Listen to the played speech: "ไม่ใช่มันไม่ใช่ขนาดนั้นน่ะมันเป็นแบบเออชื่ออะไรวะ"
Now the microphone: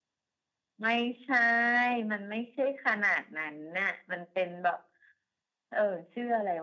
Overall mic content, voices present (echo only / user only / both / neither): echo only